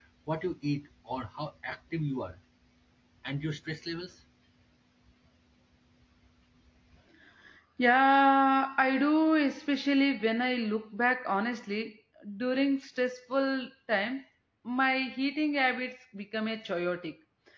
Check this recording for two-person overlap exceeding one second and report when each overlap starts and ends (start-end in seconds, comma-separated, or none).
none